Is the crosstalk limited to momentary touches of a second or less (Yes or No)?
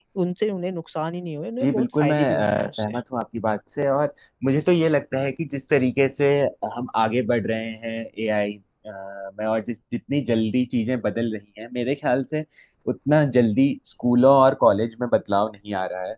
No